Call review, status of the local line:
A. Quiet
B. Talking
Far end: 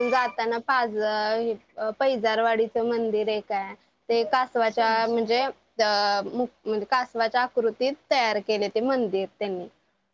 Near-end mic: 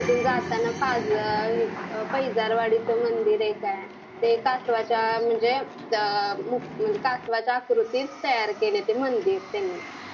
A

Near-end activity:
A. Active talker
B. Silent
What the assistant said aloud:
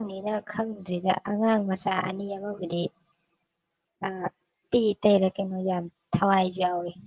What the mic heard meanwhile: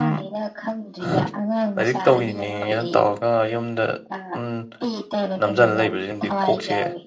A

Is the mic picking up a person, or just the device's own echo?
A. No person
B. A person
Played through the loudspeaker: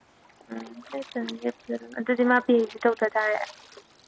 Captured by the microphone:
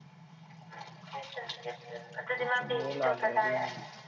B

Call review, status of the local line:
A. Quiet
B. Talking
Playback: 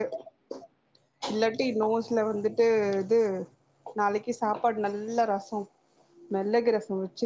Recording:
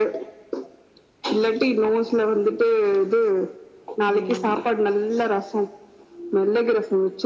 B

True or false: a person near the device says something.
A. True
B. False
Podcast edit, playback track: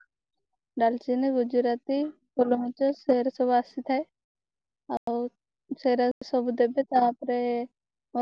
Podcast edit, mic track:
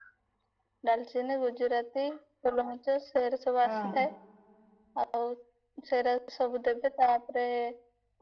A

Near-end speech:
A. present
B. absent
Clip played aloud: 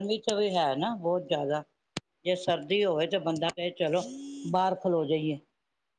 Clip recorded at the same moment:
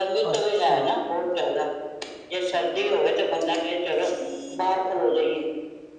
A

